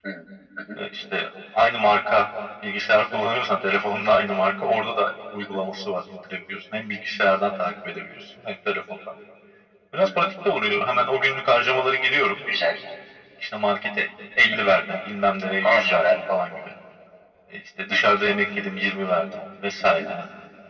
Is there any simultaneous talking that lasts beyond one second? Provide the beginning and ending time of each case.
none

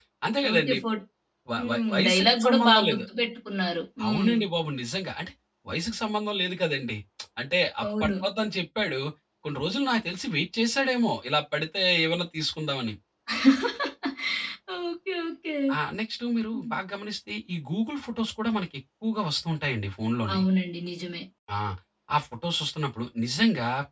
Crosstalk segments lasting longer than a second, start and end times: 1.6-3.0

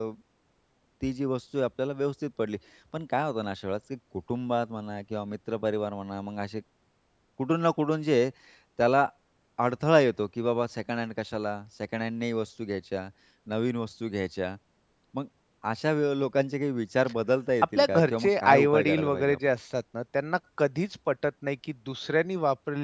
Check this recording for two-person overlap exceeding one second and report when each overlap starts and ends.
17.8-19.4

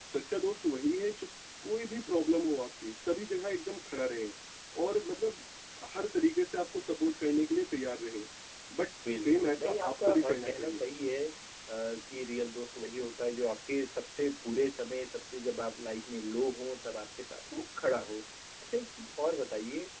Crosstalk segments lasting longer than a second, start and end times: 9.2-10.8

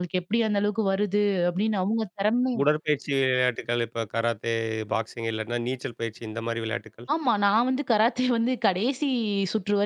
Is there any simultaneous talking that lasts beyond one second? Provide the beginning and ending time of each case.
none

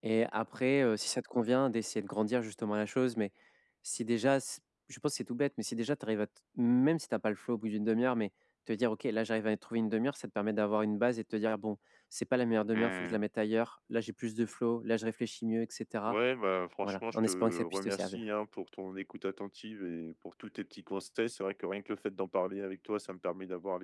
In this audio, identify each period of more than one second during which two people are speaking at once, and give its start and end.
16.8-18.2

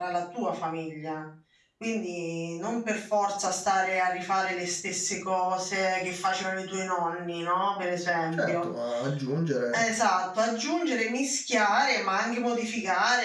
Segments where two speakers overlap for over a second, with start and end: none

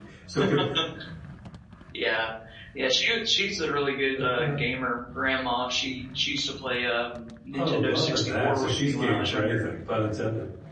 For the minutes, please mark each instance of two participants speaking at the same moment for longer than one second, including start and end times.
7.6-9.6

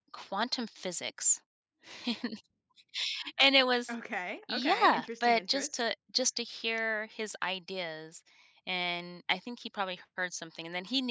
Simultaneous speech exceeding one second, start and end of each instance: 4.5-5.8

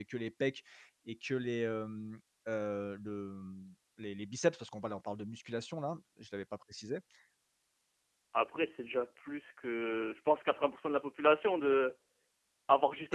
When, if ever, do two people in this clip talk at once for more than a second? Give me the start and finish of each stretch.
none

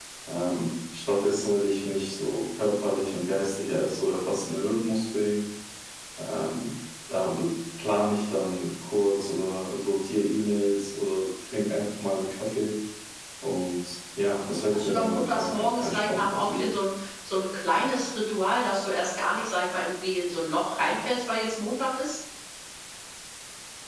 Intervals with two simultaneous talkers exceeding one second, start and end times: 14.5-16.7

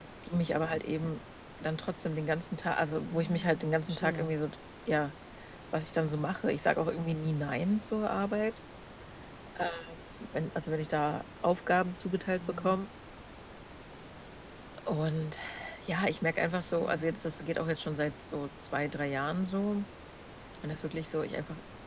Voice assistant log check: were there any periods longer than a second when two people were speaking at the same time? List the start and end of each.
3.1-4.3

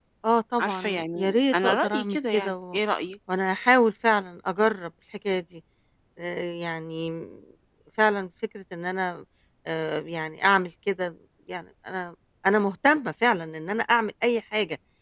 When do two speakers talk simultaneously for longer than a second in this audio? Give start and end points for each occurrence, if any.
0.6-2.8

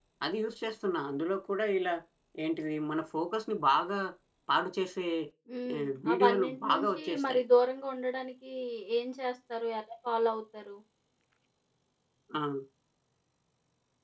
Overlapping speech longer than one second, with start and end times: 5.8-7.4

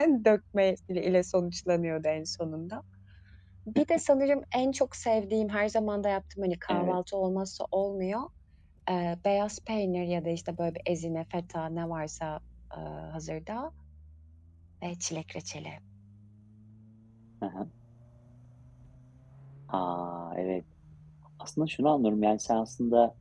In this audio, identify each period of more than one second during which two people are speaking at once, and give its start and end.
none

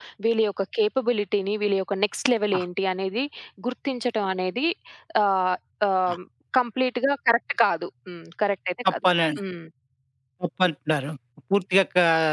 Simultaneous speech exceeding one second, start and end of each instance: none

